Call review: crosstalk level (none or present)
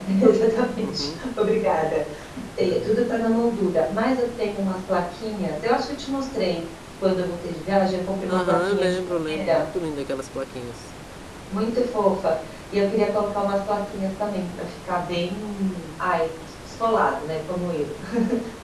present